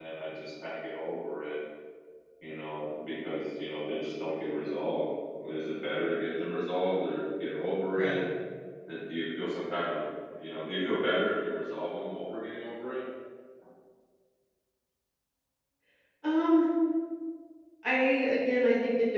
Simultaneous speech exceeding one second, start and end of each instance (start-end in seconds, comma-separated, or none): none